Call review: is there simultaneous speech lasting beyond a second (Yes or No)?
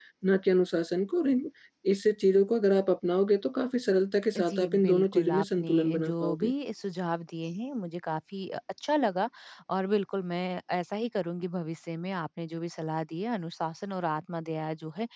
Yes